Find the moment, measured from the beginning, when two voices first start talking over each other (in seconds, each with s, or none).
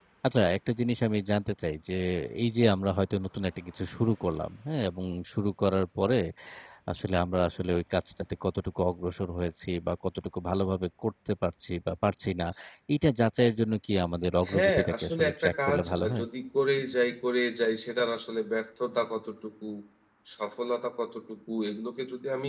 14.4 s